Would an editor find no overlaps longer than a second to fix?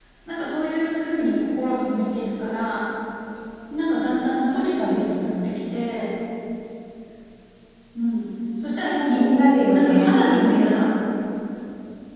No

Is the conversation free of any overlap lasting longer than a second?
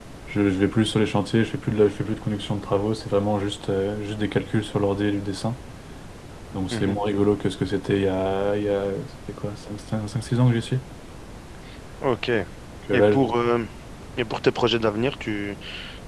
Yes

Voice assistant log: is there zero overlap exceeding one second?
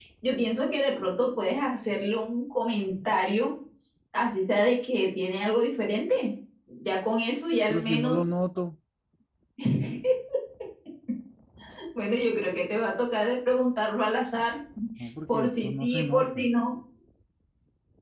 No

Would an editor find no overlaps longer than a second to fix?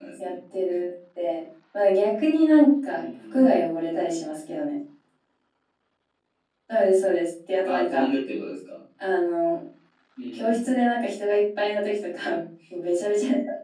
Yes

